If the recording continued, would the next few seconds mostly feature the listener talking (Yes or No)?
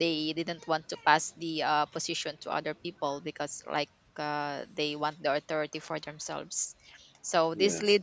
No